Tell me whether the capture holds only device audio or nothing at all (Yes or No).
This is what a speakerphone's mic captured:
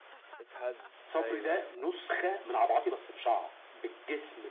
No